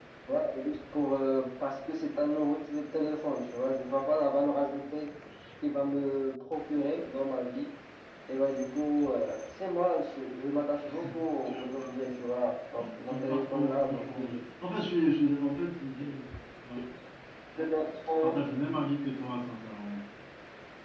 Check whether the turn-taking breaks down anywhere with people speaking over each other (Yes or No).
Yes